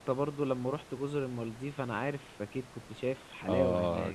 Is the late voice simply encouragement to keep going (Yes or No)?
No